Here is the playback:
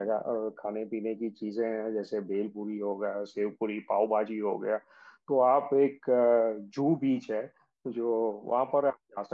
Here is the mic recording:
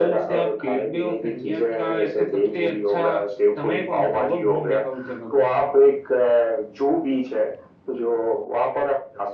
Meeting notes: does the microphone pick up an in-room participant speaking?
Yes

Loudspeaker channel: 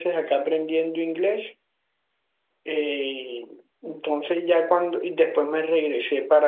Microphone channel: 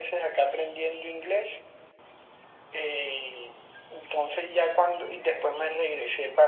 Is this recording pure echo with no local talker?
Yes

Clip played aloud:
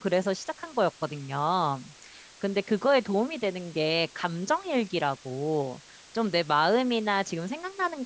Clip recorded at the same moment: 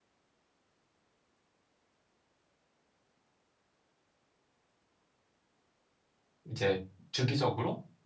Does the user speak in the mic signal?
Yes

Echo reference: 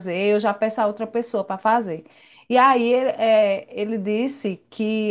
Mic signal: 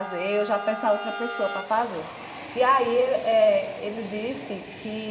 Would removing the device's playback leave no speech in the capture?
Yes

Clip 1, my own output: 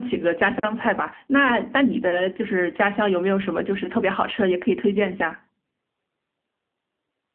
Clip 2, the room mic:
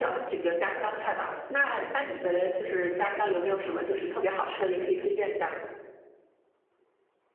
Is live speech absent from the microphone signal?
Yes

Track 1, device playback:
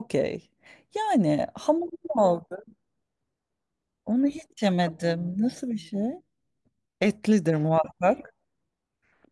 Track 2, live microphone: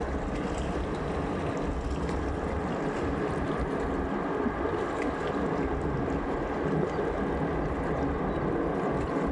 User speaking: No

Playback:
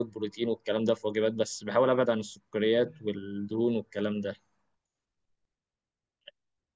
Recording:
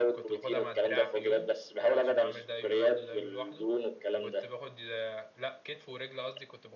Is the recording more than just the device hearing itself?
Yes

